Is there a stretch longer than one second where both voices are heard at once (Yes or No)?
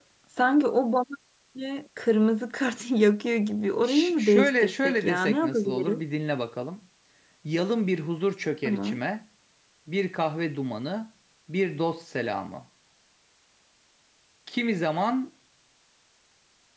Yes